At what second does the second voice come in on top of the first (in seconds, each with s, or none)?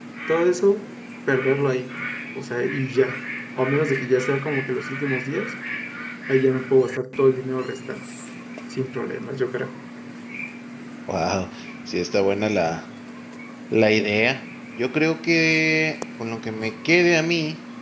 none